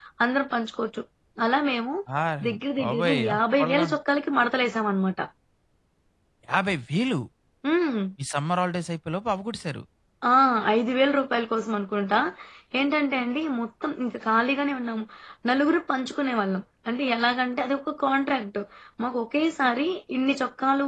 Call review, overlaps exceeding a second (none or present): present